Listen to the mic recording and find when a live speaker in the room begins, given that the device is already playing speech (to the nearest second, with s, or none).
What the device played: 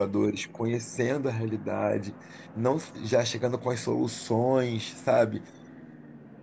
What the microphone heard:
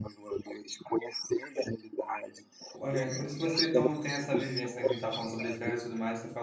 3 s